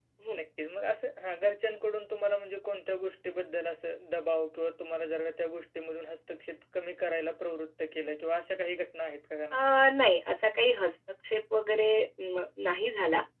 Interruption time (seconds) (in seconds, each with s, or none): none